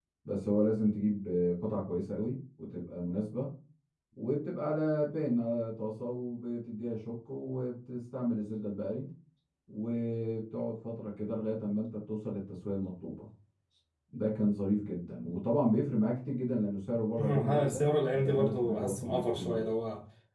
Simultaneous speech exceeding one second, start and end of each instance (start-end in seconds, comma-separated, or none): 17.2-19.6